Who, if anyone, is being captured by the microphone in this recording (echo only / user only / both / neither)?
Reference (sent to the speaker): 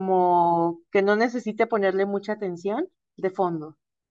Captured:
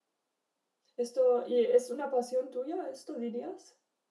user only